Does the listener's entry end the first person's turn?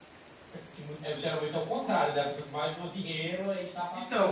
Yes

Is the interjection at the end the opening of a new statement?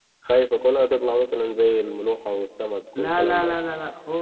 Yes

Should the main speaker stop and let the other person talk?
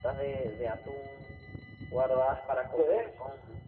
No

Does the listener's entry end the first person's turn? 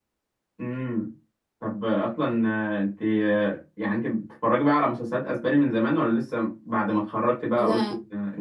No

